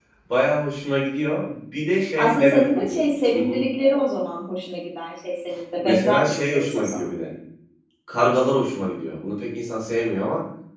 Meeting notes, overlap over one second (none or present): present